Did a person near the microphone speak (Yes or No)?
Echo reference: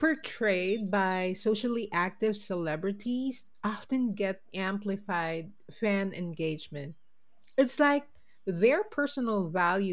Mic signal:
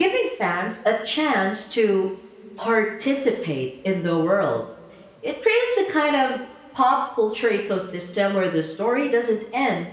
Yes